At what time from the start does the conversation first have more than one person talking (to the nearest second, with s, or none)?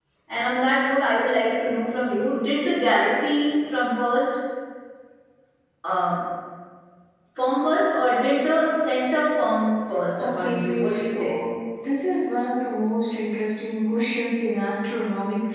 10 s